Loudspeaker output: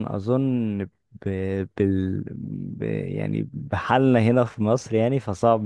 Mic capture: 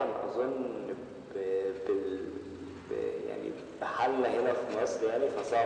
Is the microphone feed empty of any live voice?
Yes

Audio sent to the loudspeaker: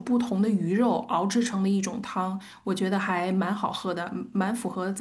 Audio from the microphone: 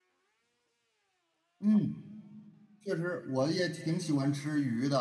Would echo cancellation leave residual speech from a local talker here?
Yes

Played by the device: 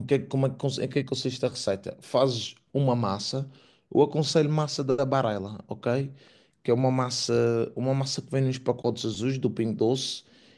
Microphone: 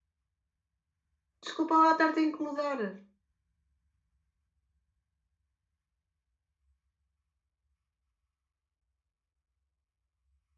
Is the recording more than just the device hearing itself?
Yes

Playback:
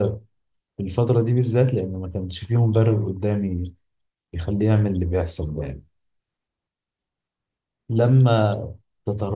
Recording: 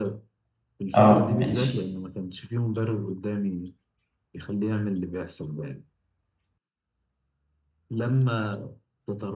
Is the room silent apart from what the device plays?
No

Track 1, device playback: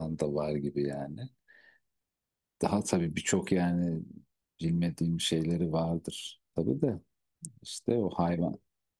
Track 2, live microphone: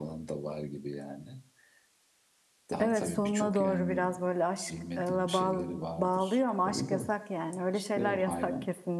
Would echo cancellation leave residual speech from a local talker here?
Yes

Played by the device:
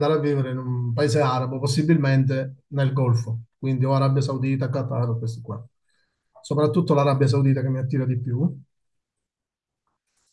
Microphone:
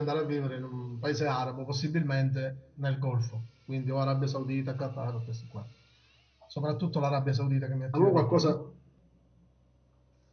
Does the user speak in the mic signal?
Yes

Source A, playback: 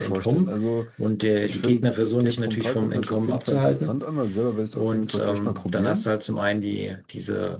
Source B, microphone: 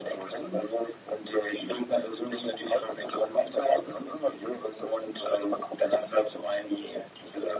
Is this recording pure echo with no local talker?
Yes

